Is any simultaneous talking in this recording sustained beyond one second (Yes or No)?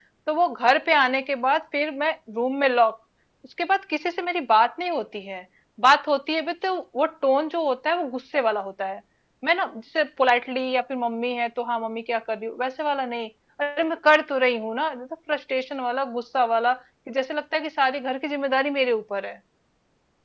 No